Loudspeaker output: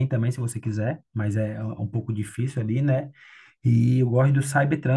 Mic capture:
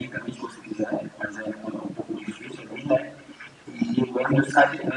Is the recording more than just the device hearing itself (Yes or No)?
No